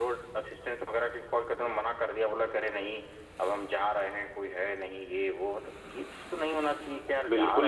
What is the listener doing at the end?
taking over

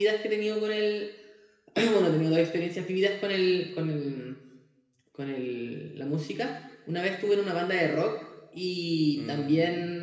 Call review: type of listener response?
listening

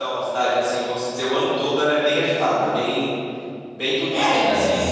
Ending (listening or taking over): taking over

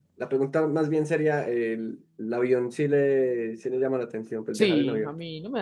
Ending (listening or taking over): taking over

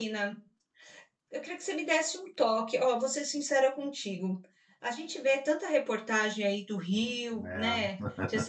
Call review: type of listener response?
listening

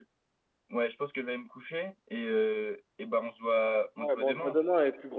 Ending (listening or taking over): taking over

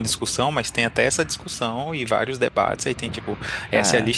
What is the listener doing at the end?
listening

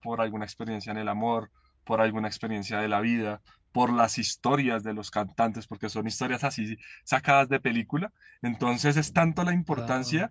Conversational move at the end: listening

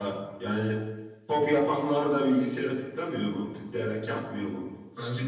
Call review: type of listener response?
listening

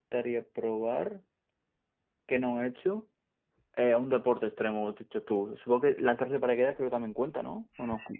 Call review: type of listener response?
taking over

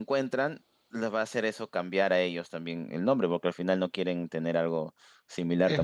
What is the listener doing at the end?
listening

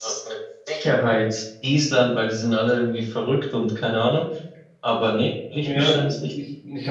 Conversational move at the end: taking over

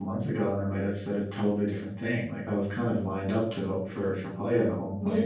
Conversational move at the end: taking over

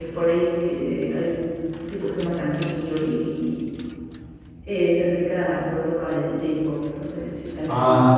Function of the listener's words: taking over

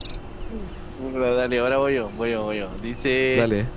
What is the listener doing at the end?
listening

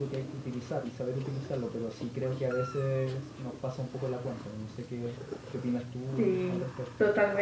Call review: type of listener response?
taking over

